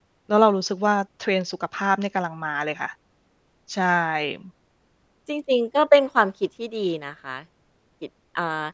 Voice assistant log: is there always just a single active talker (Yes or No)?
Yes